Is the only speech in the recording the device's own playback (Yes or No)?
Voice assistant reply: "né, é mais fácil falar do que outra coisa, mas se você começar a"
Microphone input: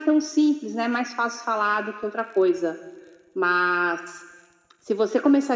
Yes